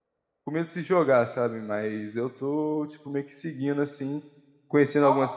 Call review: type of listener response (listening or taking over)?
listening